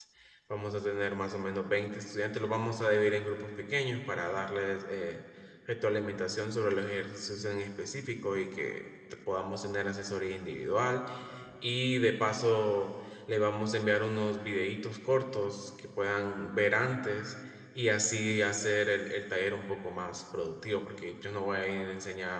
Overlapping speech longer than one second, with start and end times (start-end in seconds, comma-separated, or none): none